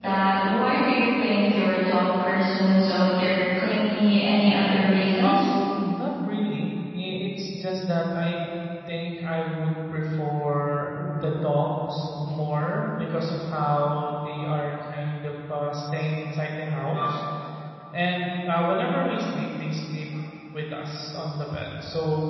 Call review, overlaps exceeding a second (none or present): none